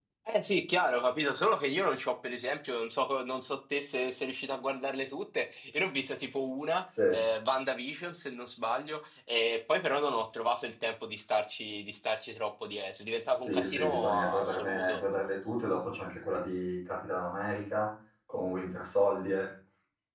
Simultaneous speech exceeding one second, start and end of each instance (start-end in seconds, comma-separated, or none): 13.4-15.0